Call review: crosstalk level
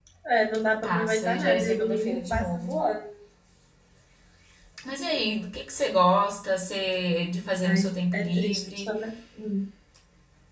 present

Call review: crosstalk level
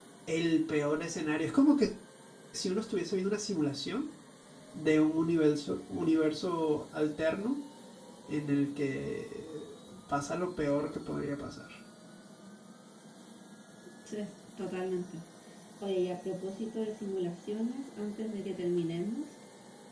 none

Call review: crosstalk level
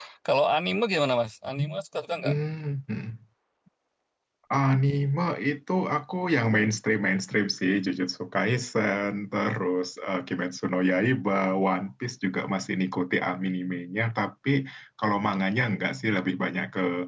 none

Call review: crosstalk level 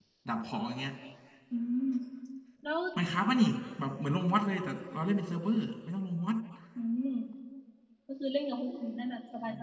none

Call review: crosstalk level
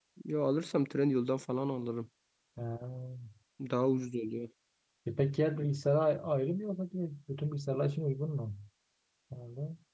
none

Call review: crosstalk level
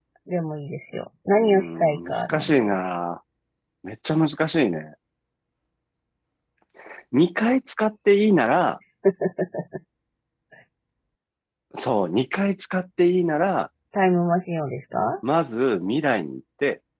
present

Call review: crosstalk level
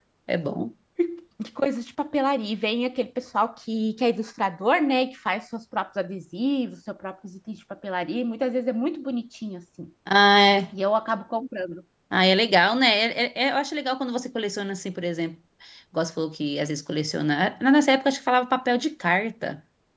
none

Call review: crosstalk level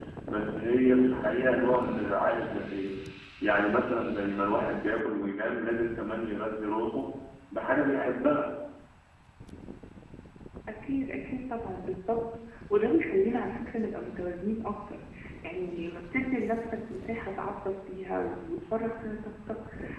none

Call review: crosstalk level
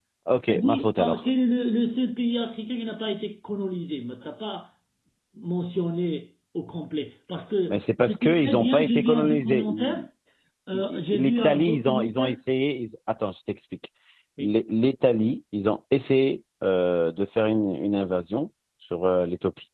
present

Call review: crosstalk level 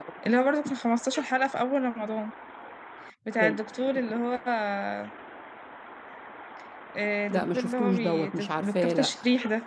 present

